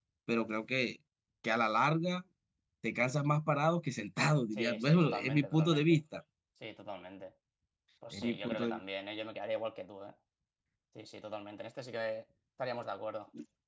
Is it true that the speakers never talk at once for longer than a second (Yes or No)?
No